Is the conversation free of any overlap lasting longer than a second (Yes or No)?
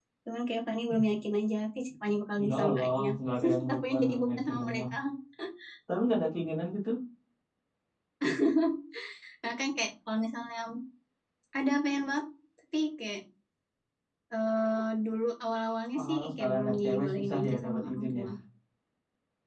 No